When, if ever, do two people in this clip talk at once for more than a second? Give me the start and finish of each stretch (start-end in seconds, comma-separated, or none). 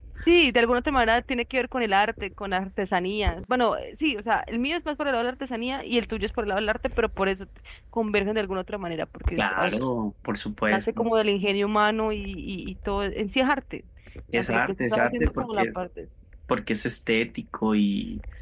14.3-15.7